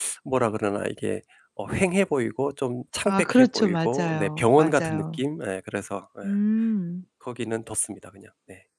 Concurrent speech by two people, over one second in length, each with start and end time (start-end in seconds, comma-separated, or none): 3.0-5.2